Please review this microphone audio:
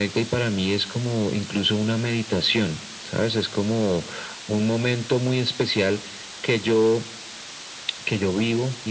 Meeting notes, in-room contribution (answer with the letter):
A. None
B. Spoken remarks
A